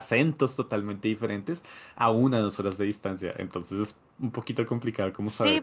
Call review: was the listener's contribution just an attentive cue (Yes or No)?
No